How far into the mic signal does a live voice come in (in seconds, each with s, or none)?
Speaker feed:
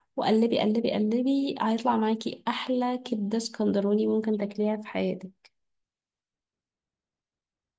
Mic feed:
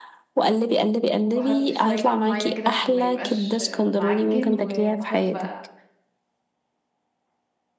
1.2 s